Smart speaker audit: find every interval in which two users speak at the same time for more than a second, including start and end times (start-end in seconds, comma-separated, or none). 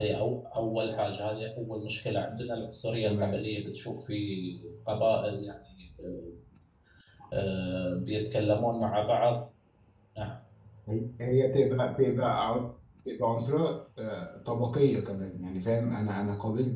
none